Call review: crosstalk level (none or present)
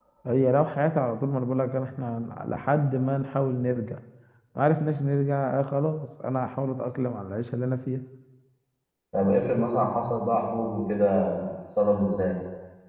none